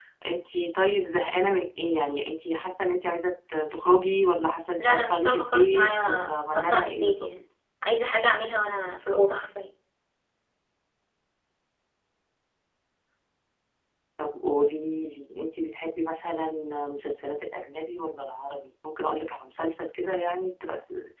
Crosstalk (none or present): present